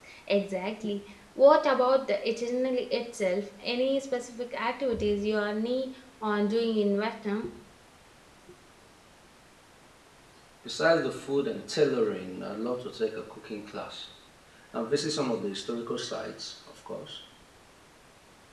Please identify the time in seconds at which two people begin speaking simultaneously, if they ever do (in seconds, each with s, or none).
none